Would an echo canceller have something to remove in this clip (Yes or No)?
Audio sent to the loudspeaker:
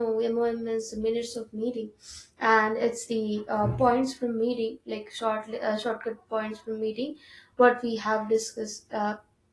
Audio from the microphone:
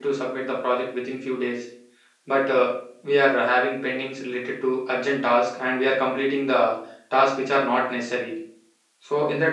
No